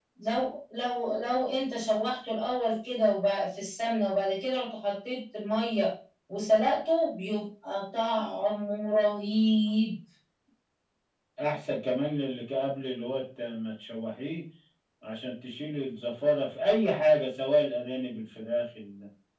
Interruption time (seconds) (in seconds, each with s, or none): none